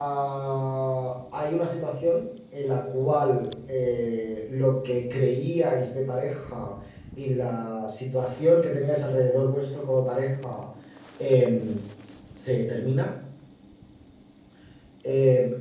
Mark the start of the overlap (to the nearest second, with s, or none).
none